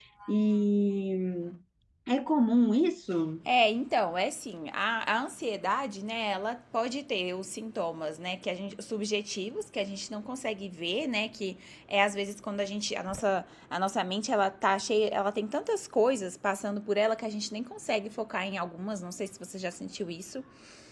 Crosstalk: none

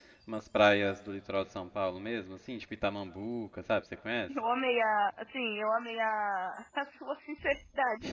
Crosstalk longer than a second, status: none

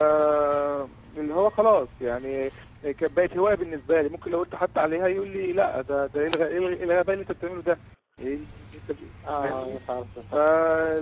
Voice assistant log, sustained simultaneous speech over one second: none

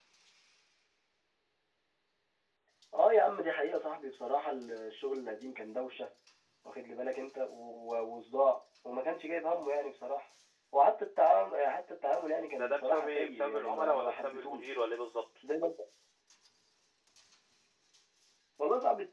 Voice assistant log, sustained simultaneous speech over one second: present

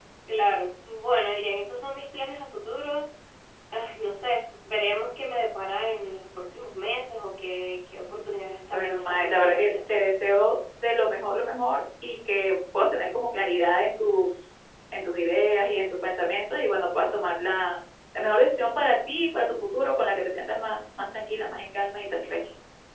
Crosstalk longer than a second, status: present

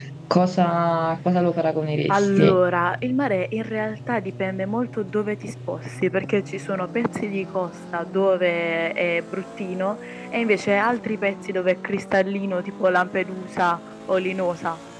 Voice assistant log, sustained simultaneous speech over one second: none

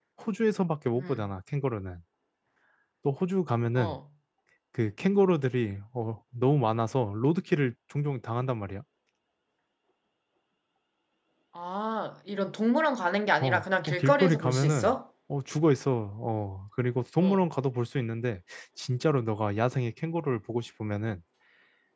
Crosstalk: present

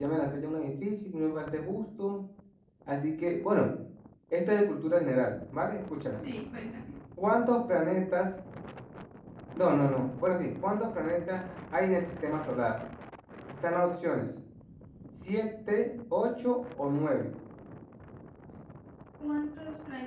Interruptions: none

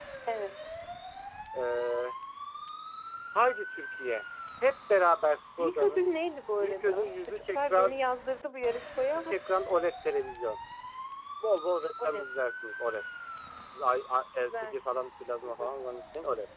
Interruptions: present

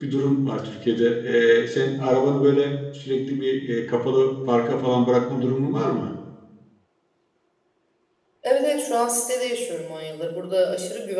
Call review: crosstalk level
none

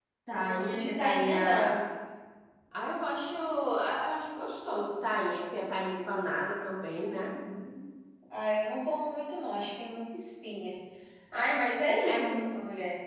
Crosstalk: present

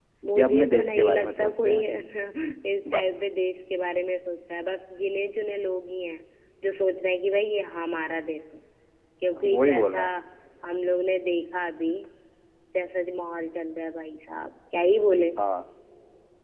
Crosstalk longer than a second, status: present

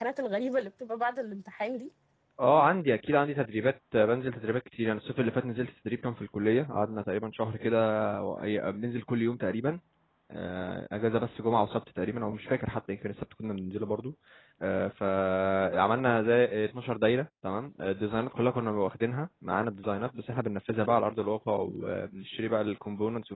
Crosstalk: none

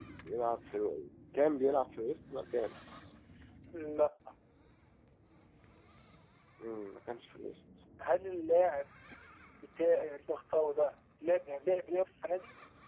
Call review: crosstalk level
none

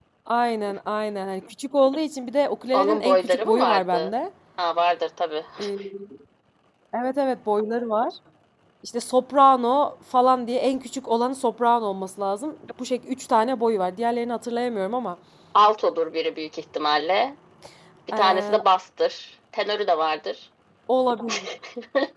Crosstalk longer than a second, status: present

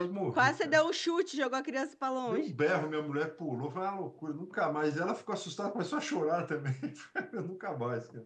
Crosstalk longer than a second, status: none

